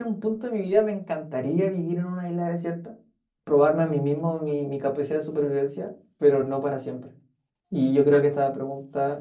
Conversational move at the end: listening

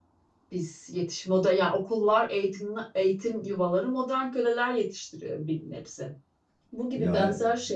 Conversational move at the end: listening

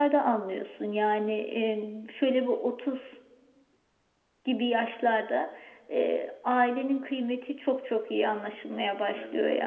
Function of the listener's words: taking over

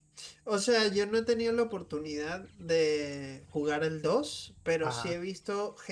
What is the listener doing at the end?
listening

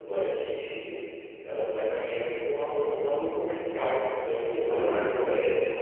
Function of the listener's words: listening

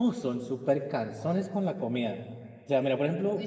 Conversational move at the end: listening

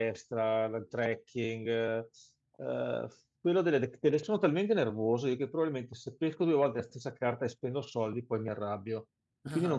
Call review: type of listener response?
listening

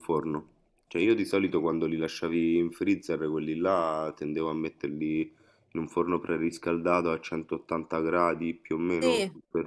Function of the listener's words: taking over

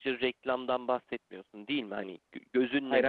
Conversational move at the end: listening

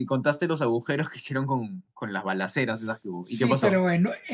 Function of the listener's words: taking over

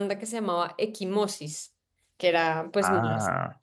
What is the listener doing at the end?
listening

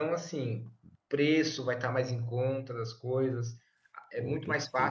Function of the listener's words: listening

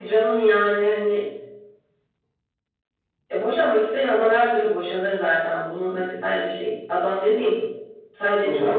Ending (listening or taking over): listening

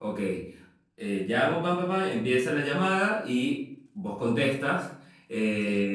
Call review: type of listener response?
listening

